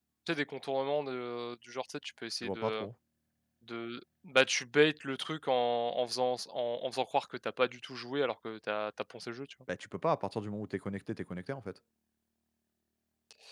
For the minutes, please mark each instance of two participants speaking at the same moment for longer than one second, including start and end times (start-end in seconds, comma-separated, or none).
none